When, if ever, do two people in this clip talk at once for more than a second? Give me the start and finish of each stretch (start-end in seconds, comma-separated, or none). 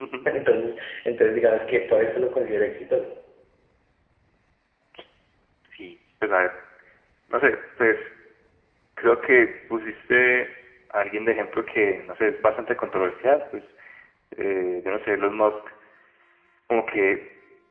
none